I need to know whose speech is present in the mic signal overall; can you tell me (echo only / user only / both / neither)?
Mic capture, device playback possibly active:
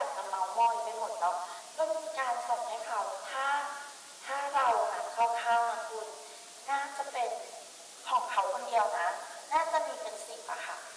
echo only